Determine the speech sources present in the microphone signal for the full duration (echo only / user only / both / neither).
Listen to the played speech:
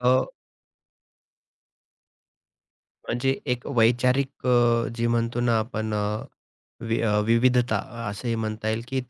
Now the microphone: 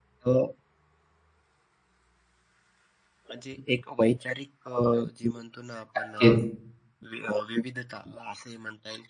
both